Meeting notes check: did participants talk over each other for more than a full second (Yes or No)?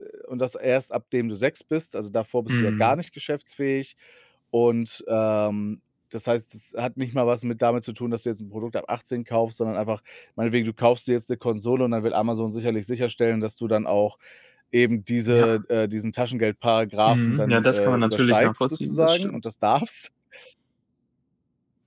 Yes